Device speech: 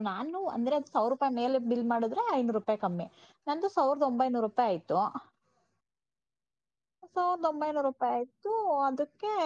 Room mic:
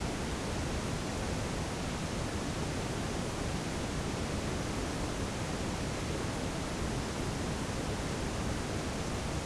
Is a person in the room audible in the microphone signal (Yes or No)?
No